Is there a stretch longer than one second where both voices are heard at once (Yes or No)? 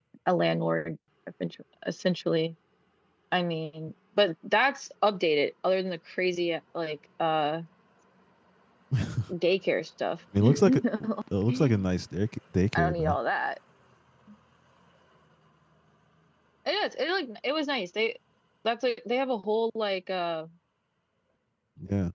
No